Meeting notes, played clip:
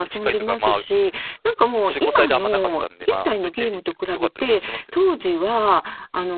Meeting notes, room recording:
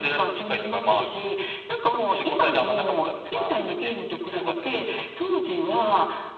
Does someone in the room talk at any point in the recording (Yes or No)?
No